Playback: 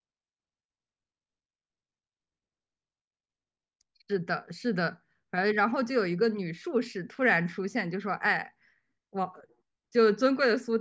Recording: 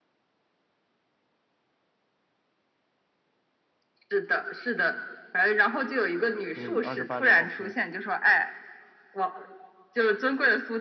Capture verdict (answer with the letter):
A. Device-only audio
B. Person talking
B